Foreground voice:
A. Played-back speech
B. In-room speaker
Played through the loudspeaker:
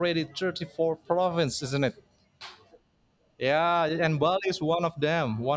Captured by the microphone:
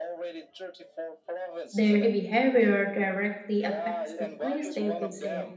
B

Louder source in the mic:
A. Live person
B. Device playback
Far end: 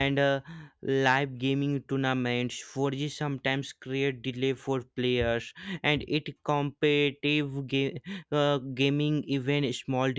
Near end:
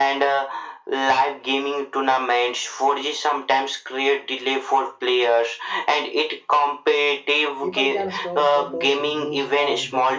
B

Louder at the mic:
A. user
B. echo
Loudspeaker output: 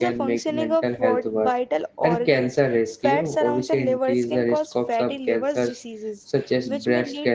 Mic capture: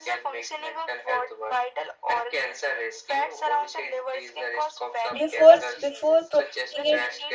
A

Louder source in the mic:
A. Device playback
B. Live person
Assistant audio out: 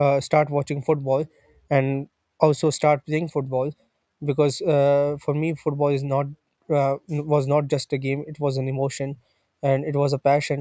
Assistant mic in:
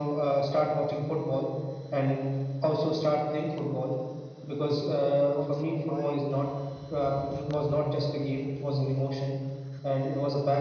A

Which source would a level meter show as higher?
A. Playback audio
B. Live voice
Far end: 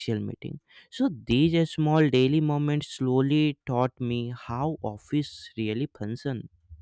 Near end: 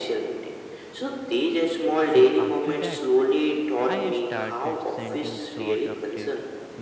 A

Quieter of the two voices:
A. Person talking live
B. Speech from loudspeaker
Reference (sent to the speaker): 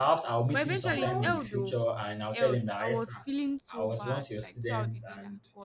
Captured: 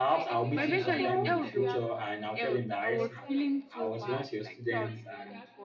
A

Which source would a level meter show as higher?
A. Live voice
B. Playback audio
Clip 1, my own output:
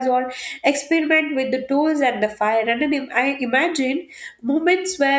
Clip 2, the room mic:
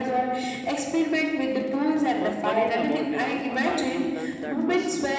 B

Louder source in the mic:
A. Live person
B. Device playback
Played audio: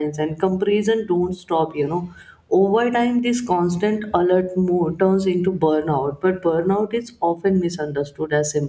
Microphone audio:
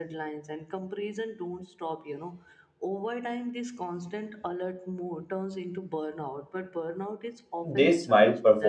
A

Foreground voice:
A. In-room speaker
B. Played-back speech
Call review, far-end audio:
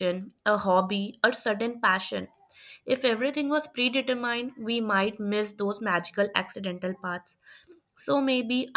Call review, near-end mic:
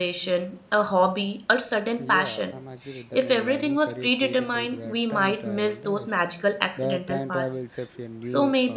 B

